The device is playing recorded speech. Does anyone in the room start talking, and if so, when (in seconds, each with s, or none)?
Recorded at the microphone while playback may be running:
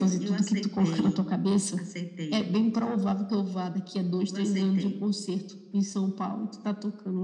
none